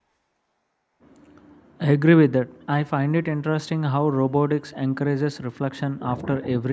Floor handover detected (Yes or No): No